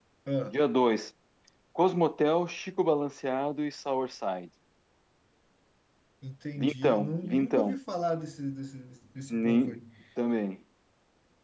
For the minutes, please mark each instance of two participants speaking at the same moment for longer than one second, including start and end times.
6.6-7.8

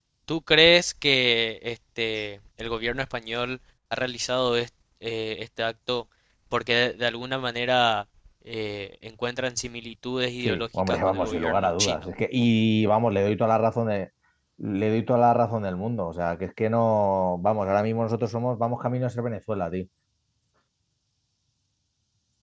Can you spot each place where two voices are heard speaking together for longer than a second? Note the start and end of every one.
10.4-12.1

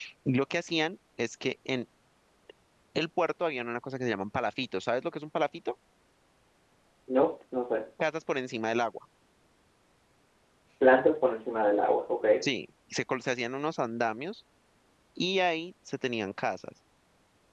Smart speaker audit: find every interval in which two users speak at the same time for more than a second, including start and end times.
none

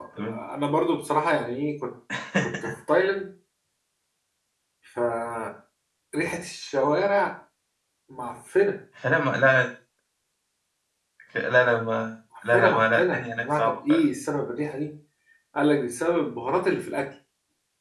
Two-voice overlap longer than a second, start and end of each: 12.5-14.0

